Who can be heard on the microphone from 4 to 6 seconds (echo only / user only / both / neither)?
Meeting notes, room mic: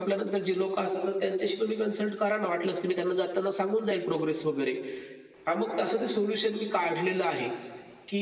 echo only